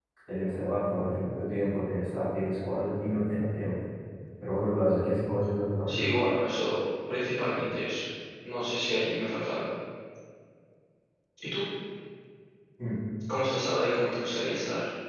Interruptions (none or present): none